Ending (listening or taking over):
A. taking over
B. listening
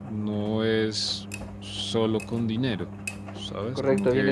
A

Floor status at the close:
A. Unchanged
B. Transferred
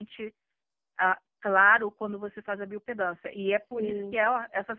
A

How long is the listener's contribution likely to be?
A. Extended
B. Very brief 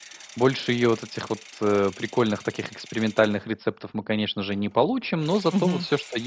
B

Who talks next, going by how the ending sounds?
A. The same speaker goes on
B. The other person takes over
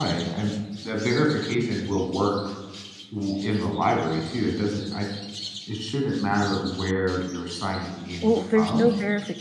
B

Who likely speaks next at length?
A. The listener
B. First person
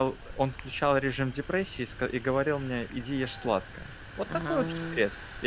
B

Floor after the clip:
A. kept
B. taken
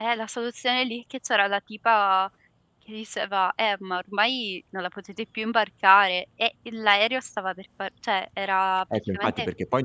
B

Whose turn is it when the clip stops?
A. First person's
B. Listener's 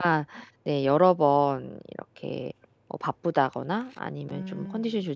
A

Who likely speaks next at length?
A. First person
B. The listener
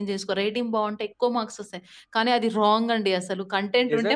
B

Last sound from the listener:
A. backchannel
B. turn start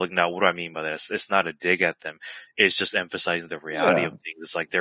A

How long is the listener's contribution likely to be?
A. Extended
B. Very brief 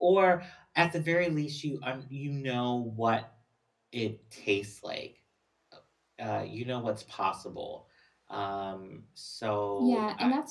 A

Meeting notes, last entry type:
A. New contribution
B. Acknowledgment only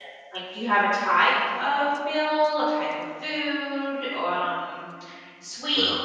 B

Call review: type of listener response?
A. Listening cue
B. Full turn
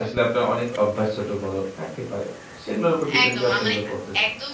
B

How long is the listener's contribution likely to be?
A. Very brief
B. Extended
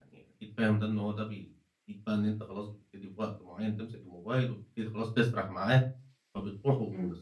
A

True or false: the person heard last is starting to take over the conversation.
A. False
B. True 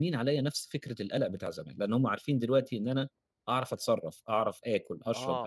B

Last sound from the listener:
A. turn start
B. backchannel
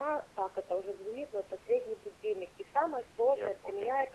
B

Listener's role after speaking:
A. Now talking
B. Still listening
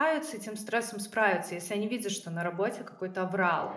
B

